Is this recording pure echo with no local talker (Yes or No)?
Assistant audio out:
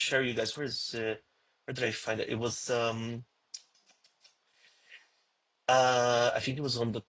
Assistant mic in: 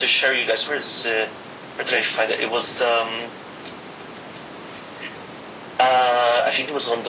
Yes